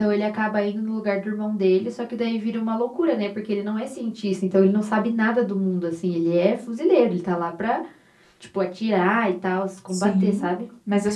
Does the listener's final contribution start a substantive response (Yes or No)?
Yes